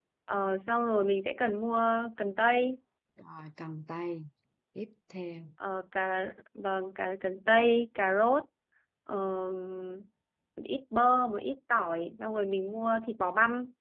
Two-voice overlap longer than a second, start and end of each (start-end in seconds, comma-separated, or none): none